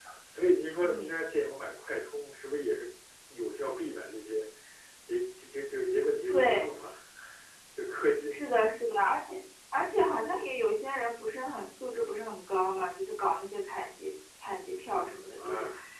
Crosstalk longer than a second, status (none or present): none